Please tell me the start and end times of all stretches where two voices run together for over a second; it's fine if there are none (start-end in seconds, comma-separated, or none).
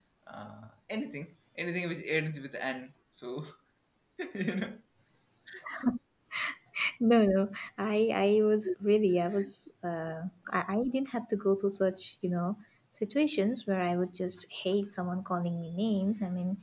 none